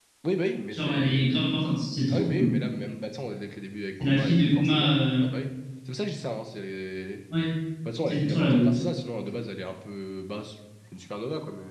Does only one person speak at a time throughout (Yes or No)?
No